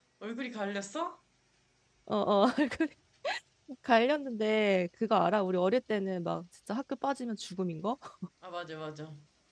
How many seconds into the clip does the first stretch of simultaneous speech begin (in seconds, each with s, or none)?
none